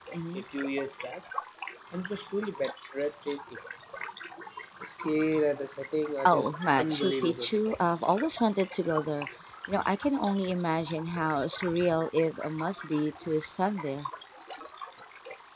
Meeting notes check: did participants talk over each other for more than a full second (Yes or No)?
Yes